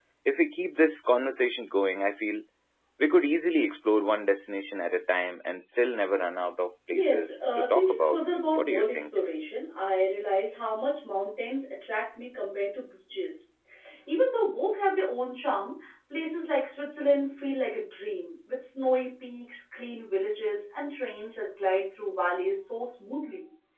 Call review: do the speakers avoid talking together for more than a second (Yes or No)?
No